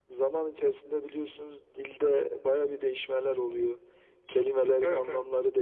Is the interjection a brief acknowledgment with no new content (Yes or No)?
No